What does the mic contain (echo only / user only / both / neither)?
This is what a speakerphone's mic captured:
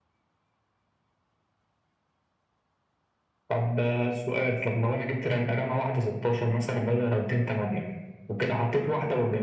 echo only